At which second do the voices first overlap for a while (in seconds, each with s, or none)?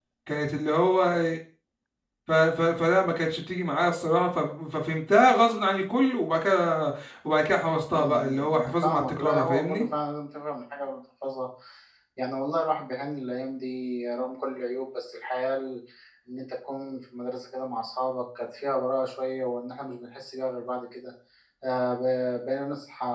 7.9 s